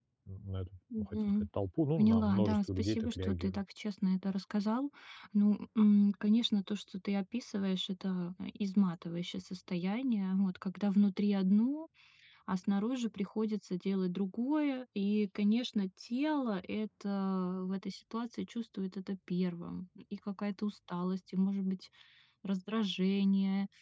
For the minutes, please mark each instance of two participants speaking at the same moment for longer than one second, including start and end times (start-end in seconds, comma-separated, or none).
2.0-3.6